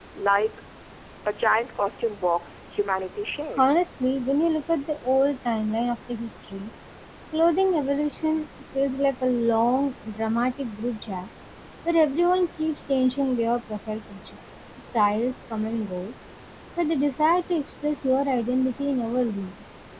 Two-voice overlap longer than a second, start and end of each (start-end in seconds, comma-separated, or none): none